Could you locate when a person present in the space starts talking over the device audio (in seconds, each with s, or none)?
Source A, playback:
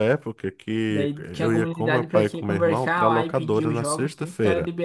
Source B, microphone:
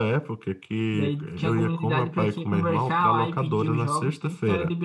none